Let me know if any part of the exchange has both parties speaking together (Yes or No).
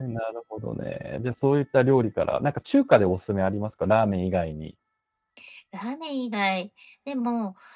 No